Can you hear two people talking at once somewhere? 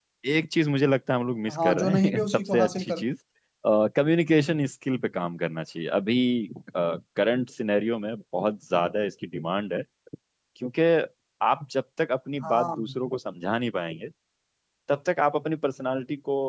Yes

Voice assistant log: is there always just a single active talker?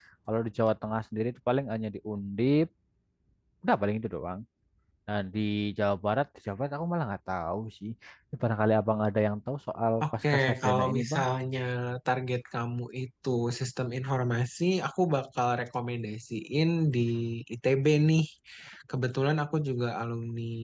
No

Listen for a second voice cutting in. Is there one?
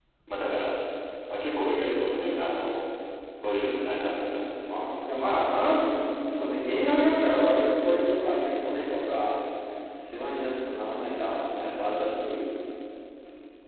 No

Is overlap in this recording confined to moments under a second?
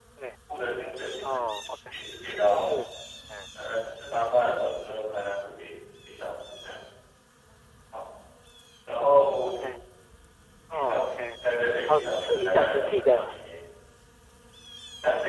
No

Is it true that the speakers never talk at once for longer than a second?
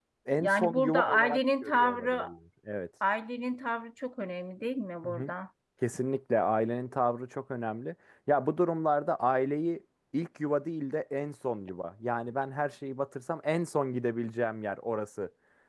No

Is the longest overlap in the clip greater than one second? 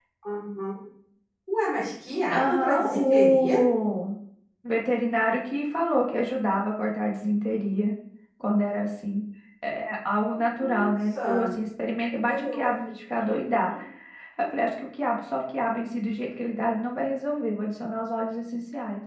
Yes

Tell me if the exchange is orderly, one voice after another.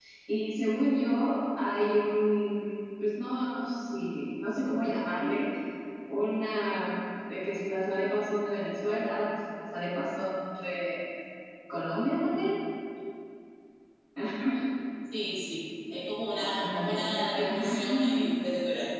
No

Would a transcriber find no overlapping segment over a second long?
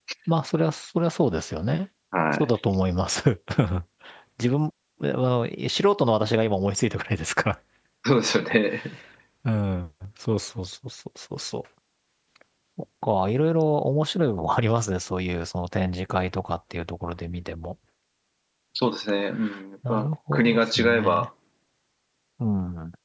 No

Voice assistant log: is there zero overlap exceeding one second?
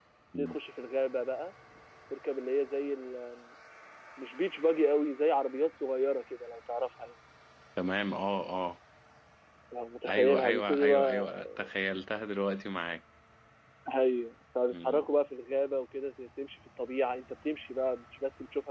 No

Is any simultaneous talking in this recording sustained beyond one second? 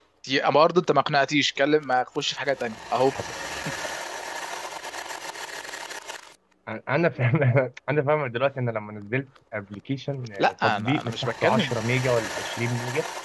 Yes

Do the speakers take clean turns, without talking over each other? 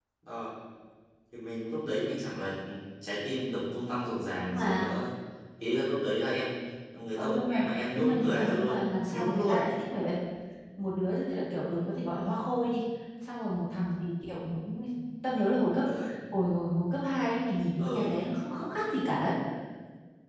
No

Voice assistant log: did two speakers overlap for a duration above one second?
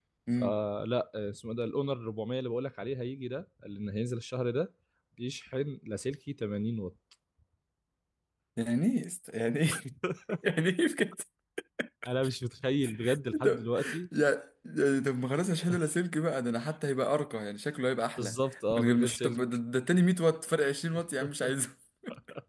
Yes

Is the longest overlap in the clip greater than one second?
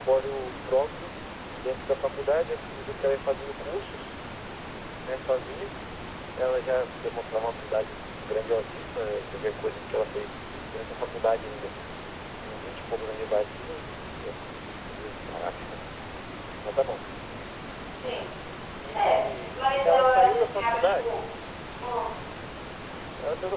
Yes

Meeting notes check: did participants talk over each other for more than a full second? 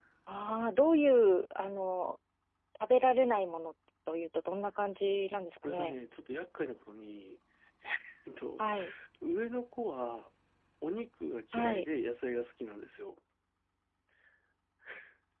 No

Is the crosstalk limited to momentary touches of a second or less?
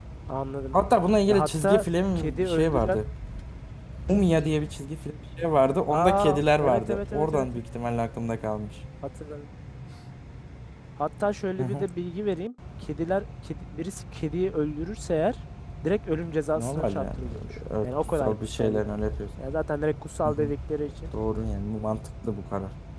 No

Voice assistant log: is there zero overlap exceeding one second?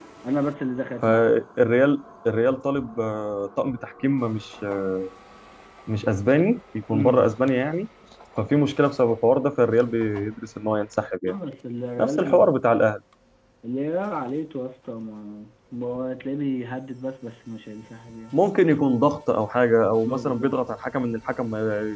Yes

